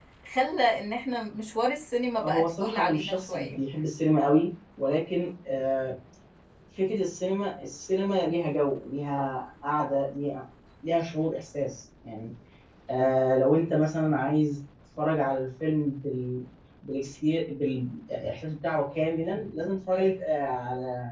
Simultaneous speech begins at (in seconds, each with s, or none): 2.2 s